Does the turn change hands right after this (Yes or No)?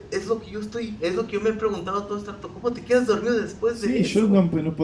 Yes